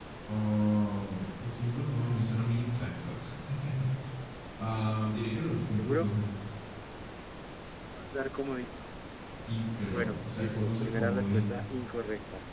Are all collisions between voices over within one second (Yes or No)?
No